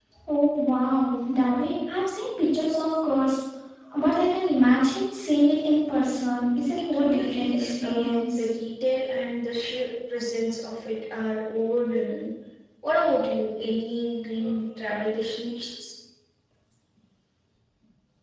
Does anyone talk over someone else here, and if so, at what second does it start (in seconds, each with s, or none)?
6.9 s